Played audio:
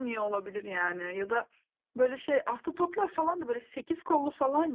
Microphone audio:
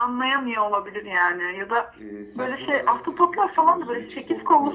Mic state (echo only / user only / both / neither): both